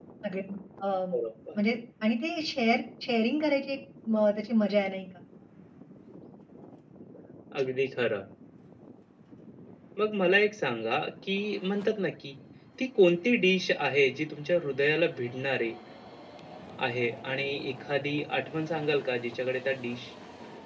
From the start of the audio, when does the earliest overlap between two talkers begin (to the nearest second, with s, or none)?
none